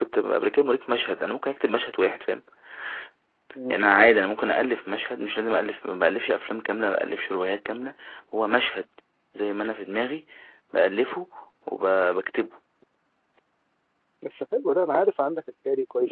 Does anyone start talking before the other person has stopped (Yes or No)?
No